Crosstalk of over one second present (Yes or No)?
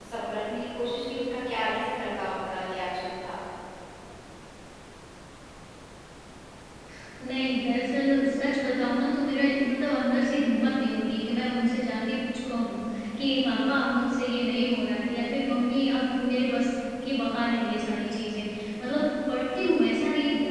No